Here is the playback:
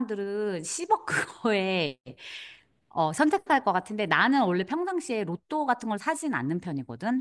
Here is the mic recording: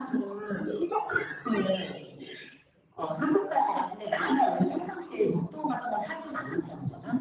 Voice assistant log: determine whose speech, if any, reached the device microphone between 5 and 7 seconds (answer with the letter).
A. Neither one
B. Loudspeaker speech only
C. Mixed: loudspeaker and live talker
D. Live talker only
B